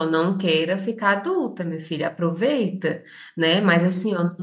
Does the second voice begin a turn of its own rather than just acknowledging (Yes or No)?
No